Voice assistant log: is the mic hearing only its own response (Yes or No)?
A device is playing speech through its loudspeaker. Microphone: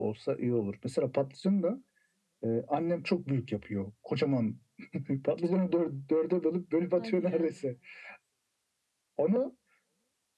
No